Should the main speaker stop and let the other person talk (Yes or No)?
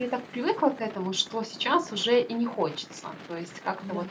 No